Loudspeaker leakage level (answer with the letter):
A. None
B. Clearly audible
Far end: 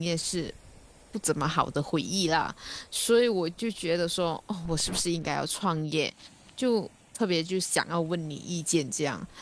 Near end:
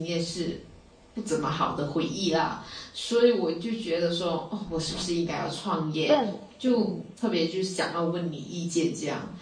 B